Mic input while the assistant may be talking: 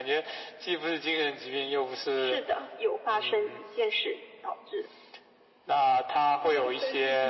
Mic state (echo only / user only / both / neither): both